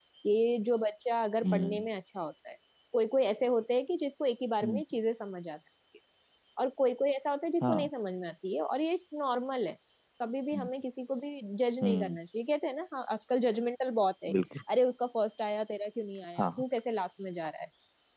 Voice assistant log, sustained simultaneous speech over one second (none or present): none